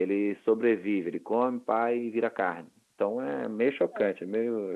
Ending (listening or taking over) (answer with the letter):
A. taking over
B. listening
B